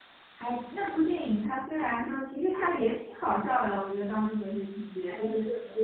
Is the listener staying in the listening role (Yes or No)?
Yes